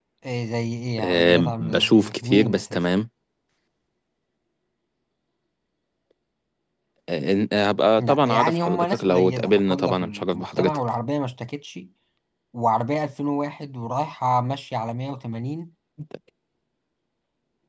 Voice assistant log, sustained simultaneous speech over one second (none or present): present